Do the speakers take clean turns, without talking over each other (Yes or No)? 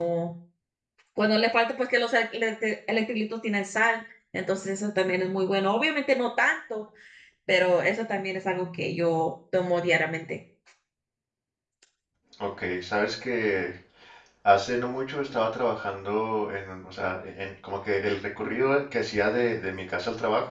Yes